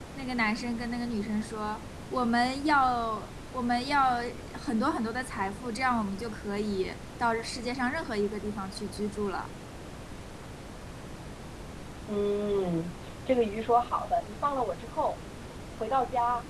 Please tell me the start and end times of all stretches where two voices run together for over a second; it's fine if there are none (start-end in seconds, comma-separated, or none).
none